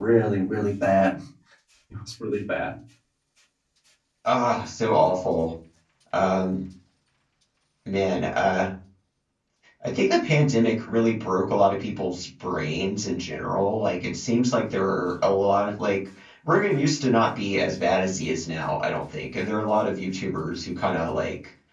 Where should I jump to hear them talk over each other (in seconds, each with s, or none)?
none